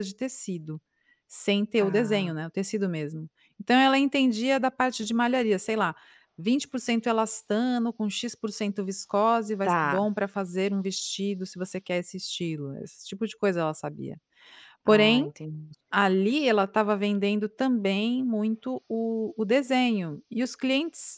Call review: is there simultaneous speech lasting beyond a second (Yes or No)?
No